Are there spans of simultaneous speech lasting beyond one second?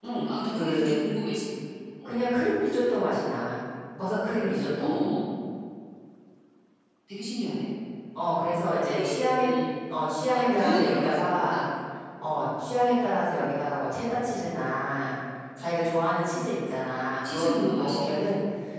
Yes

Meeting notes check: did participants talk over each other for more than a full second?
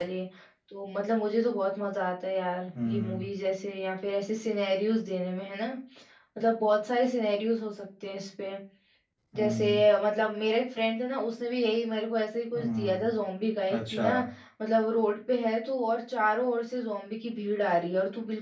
No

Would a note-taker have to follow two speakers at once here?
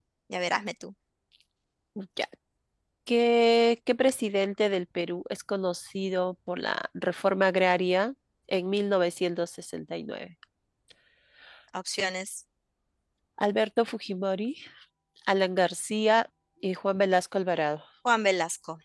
No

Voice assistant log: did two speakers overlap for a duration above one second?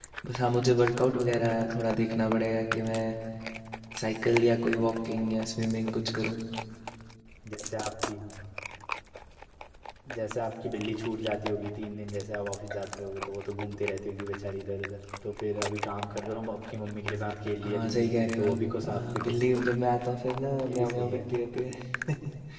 Yes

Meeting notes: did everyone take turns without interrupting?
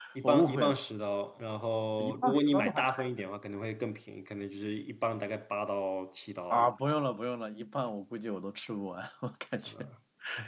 No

